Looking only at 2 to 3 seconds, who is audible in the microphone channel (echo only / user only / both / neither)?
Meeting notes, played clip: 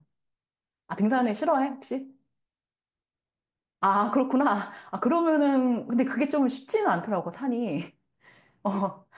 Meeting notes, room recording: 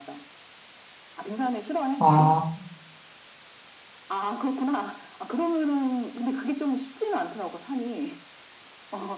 both